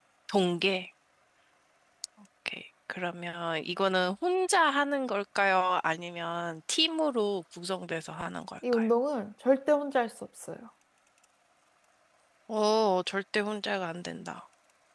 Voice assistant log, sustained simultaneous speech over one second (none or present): none